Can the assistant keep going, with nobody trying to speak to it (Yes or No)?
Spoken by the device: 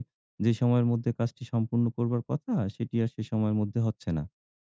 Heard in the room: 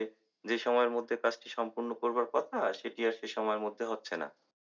Yes